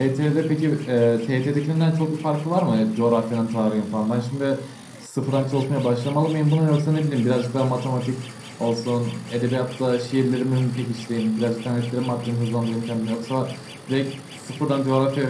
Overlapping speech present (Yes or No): No